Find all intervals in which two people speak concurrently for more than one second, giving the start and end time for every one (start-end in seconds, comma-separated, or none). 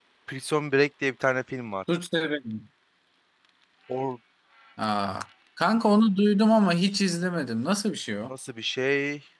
none